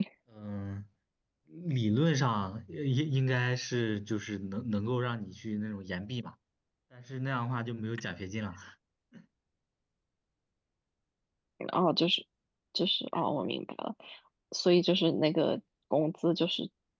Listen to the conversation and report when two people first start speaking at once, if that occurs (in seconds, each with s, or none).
none